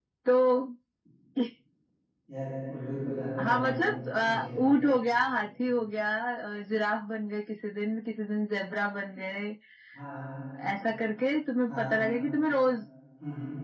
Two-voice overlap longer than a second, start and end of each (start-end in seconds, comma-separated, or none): 3.4-4.7